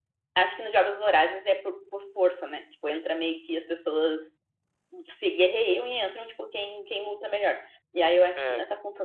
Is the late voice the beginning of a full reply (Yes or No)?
No